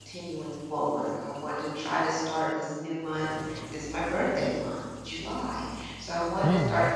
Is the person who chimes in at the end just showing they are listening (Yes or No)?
Yes